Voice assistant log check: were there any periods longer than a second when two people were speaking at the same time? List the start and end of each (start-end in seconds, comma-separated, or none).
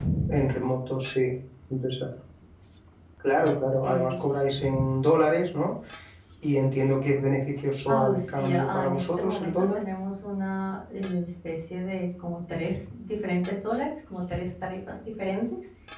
7.9-9.8